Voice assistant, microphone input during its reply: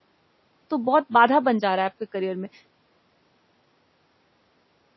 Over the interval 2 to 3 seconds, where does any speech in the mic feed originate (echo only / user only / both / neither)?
user only